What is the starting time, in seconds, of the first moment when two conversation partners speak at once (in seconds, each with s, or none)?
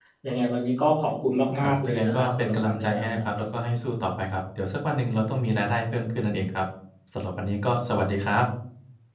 1.6 s